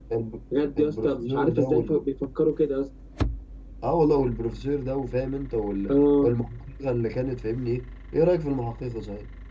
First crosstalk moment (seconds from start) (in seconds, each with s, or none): 0.8 s